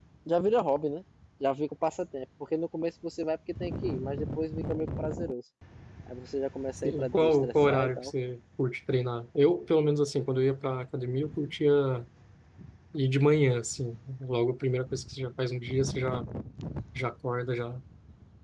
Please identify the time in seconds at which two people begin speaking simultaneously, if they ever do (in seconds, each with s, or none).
6.8 s